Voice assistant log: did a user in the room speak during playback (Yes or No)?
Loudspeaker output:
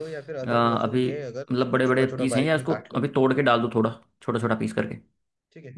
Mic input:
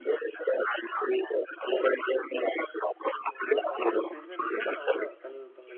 Yes